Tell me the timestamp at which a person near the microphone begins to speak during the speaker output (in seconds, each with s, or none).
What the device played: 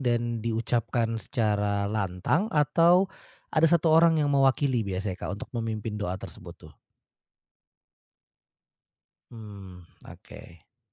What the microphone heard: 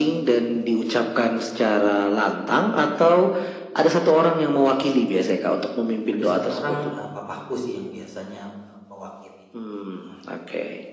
6.1 s